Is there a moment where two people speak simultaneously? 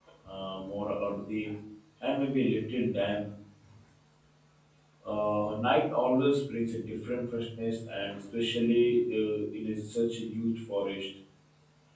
No

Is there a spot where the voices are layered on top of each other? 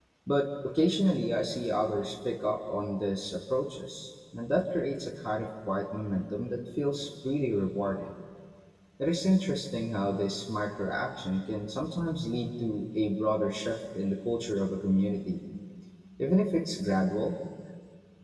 No

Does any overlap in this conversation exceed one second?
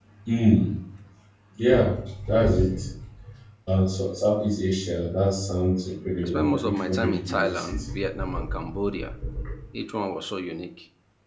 Yes, from 6.2 s

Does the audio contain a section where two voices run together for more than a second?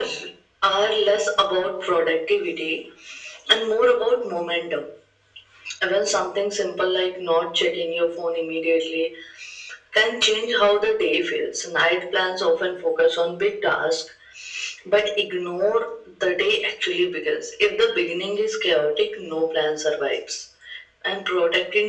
No

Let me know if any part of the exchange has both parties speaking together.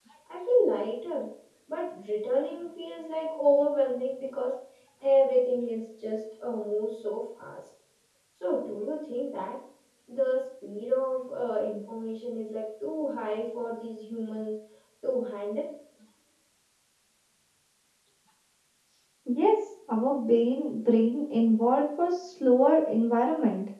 No

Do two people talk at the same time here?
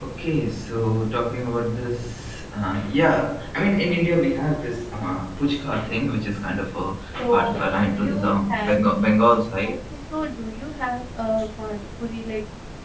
Yes, from 7.3 s

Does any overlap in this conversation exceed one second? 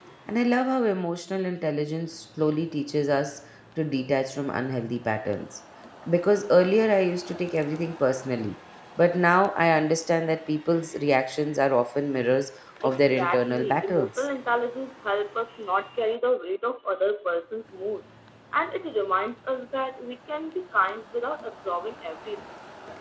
Yes, from 12.8 s

